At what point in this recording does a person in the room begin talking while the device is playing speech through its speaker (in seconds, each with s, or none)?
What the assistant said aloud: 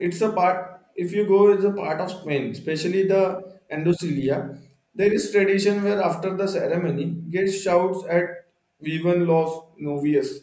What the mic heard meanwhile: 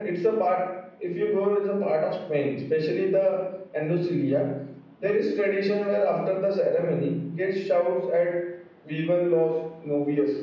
none